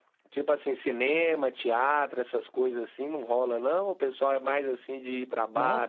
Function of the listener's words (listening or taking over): taking over